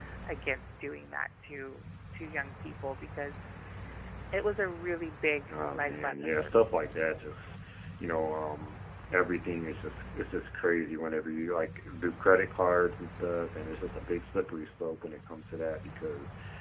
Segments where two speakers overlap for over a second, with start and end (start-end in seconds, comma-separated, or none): 5.5-6.7